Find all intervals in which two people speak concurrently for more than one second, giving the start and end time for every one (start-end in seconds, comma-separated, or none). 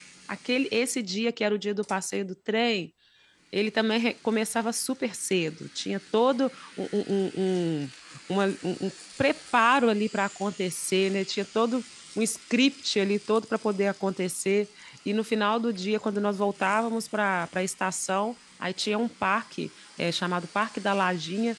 none